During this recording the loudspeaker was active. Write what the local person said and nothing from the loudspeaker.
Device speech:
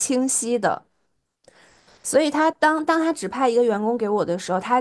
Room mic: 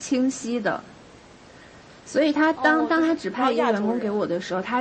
哦，就是只要亚洲人，

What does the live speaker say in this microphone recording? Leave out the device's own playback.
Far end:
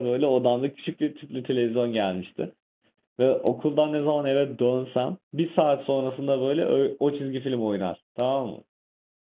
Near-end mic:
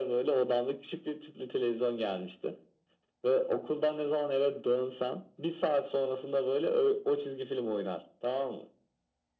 none

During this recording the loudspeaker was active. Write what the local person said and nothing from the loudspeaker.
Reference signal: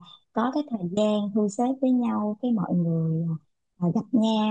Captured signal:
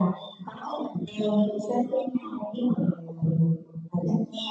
none

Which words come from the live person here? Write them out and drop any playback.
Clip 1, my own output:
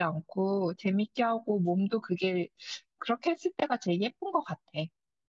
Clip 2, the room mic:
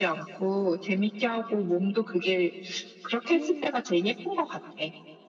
음,

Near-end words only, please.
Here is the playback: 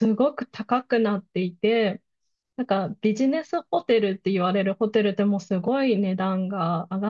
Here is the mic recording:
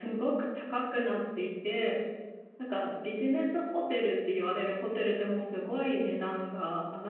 none

